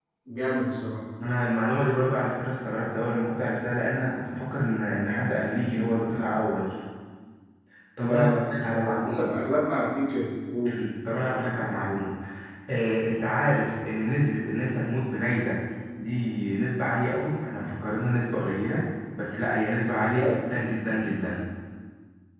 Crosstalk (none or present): present